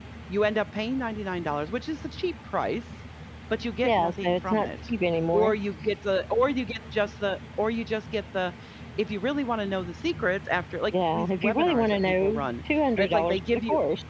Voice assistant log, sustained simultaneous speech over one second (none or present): present